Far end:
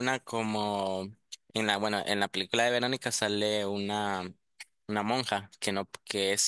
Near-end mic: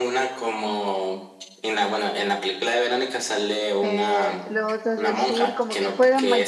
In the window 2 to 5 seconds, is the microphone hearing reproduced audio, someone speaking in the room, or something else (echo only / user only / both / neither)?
both